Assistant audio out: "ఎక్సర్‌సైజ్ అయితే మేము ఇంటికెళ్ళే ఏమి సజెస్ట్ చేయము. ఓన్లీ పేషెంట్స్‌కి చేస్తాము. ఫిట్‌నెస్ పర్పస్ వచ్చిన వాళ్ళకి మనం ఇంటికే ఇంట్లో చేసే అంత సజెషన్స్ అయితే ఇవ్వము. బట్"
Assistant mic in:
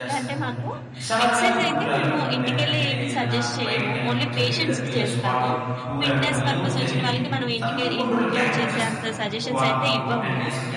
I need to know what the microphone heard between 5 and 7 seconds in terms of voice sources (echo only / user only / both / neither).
both